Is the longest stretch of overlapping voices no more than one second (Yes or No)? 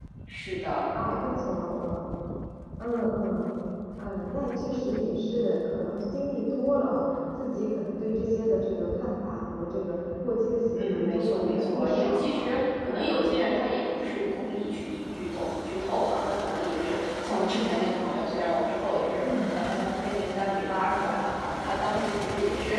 No